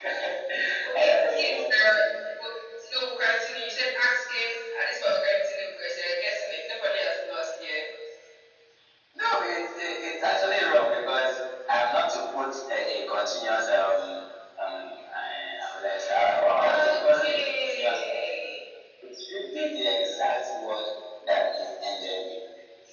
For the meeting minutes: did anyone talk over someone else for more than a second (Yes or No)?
Yes